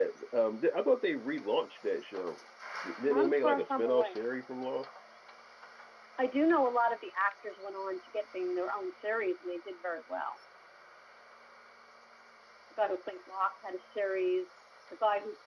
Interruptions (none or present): present